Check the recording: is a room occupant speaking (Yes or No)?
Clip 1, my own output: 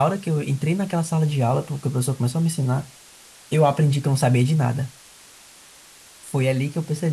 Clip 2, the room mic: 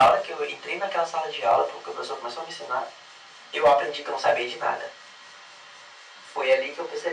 No